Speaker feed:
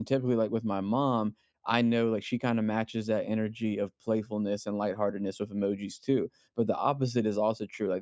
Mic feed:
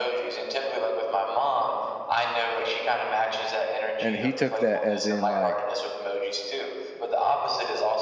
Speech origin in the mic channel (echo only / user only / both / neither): both